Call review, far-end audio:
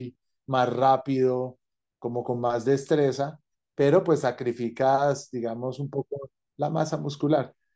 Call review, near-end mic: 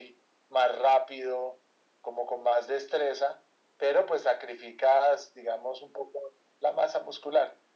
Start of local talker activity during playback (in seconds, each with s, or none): none